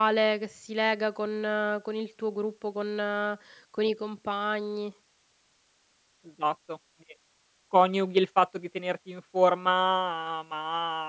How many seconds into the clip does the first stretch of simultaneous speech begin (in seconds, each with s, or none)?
none